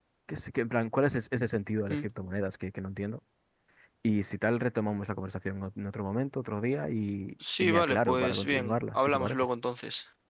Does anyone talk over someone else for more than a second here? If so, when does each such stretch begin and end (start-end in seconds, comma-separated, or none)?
7.6-9.5